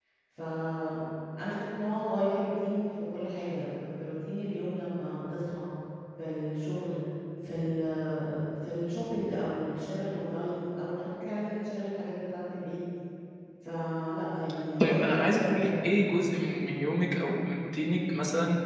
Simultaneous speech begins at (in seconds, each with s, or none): 14.8 s